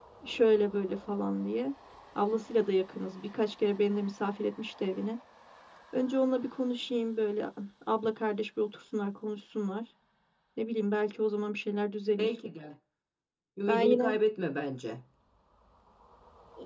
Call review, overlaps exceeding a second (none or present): none